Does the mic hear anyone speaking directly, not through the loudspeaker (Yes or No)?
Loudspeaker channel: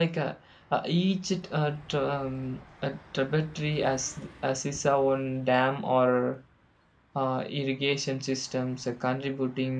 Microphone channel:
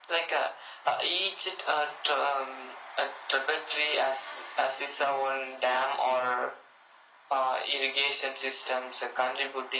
No